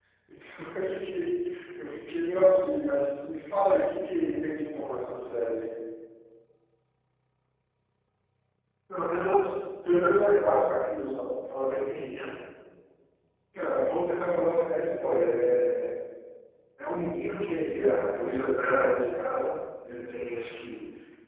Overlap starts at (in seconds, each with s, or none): none